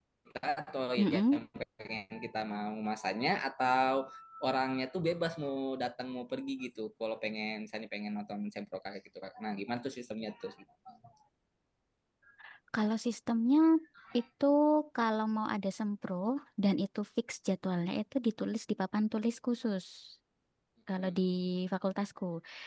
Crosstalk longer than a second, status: none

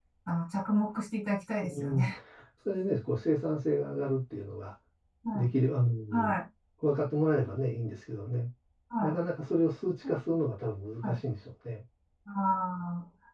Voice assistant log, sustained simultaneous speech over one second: none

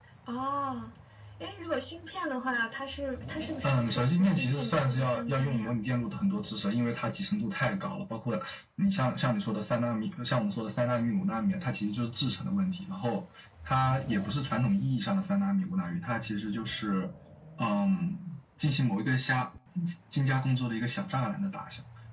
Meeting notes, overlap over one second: present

